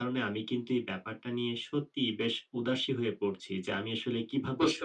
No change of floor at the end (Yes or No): Yes